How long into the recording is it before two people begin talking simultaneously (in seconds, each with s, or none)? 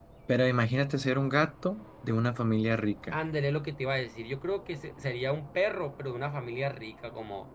none